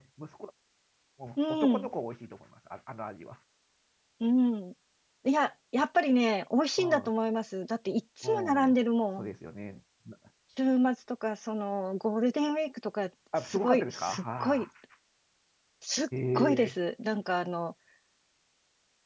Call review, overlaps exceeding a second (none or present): present